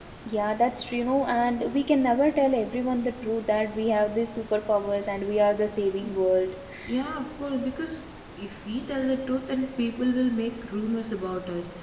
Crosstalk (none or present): none